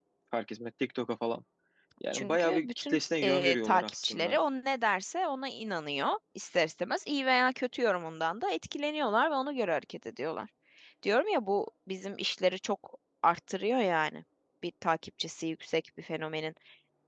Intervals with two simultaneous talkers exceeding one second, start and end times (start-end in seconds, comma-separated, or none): 2.1-4.4